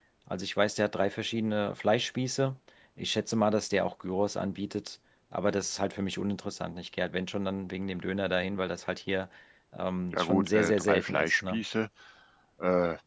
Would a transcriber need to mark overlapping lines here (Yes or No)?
Yes